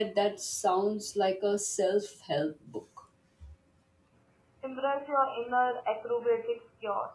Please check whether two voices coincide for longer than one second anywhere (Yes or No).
No